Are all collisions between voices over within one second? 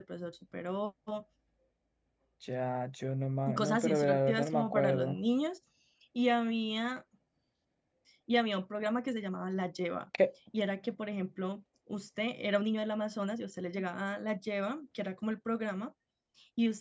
No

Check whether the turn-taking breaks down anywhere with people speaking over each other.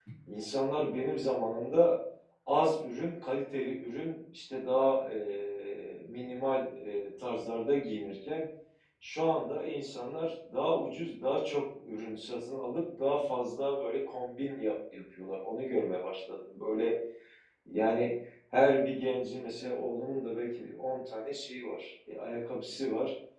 No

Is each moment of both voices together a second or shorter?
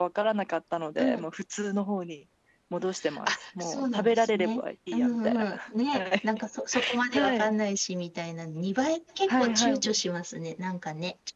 No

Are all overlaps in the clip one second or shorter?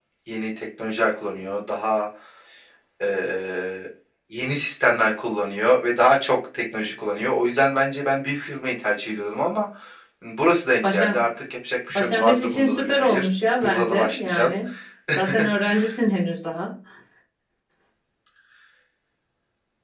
No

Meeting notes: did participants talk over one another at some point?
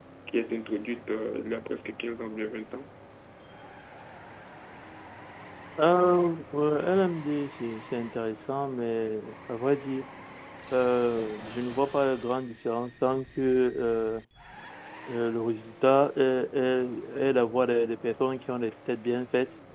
No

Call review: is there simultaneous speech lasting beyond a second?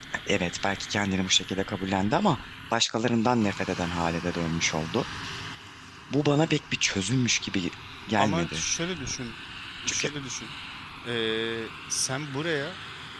No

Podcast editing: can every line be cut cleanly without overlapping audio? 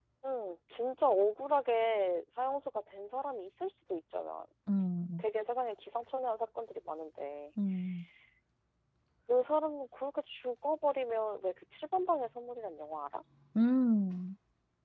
Yes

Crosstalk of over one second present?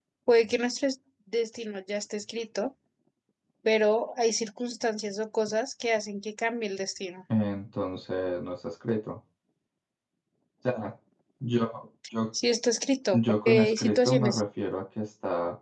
Yes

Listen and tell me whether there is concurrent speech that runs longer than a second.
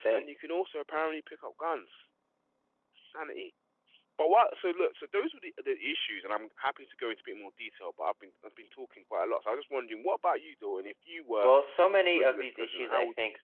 Yes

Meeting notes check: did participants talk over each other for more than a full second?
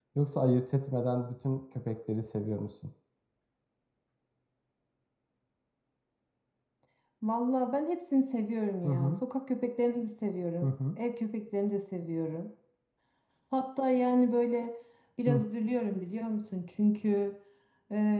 No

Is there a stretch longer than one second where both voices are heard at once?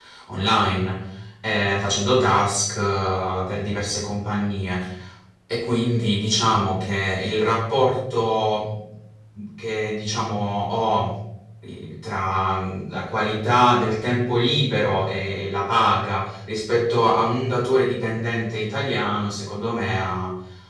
No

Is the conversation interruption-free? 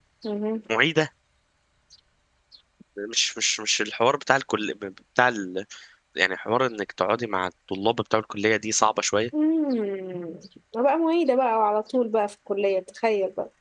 Yes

